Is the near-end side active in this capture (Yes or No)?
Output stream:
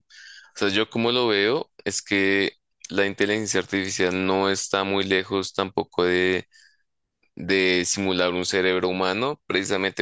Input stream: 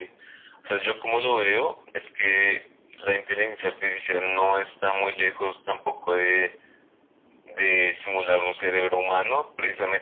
No